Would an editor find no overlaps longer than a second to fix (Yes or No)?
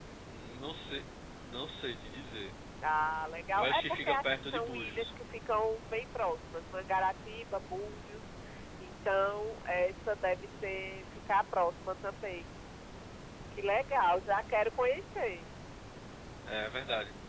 No